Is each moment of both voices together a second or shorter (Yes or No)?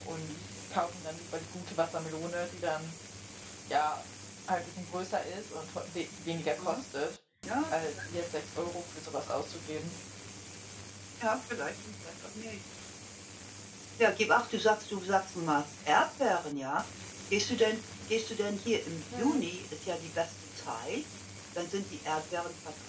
Yes